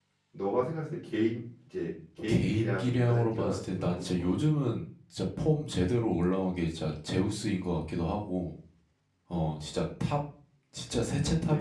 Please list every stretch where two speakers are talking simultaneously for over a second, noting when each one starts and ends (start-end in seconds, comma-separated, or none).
2.3-4.2